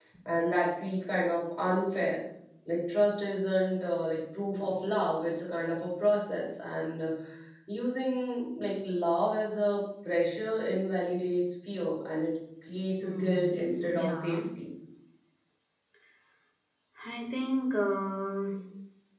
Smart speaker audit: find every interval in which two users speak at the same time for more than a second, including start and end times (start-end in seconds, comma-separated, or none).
13.0-14.4